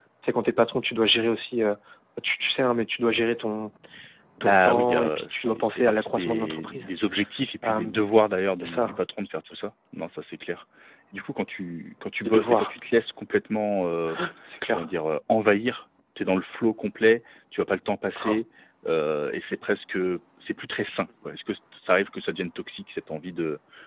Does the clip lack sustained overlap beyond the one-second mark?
No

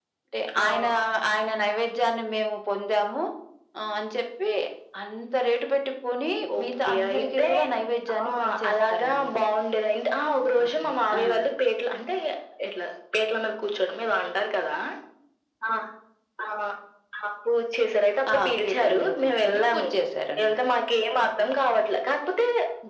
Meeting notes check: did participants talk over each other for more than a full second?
Yes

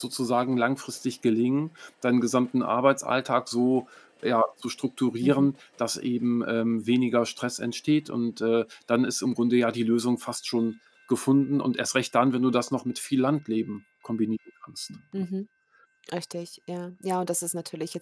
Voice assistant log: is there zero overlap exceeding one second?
Yes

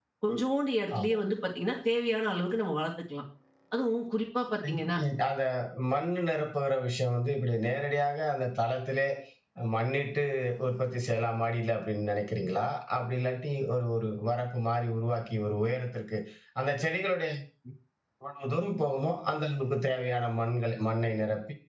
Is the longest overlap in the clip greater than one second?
No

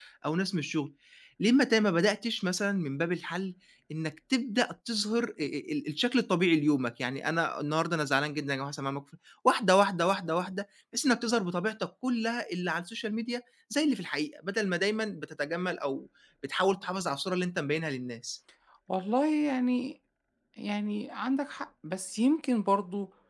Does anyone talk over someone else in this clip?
No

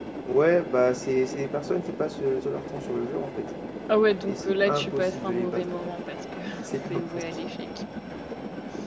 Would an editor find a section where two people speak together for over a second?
Yes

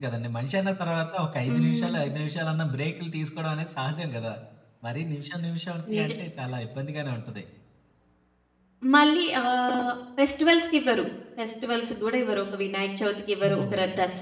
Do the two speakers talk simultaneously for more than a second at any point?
No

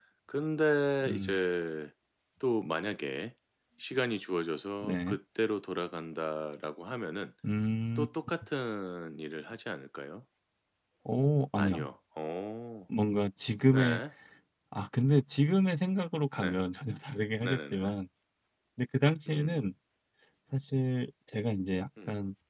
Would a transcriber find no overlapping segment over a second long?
Yes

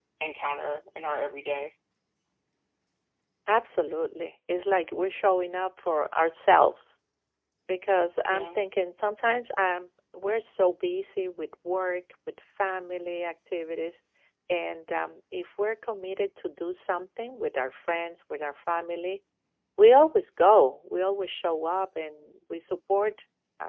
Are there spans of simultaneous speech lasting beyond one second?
No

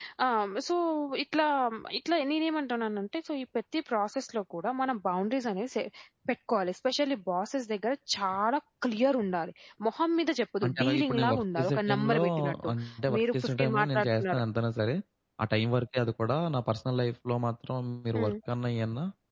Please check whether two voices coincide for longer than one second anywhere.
Yes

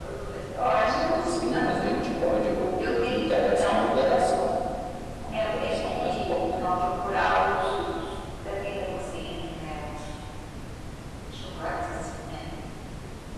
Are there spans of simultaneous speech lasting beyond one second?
Yes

